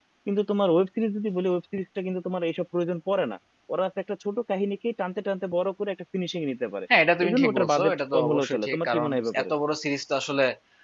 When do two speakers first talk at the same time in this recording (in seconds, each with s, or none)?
7.2 s